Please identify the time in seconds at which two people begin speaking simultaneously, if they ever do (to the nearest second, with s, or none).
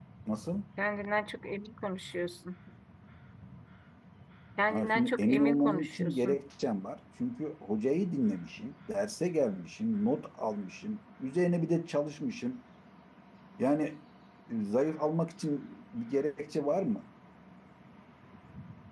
5 s